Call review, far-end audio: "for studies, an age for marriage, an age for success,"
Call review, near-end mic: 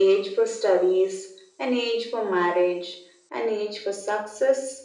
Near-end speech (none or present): none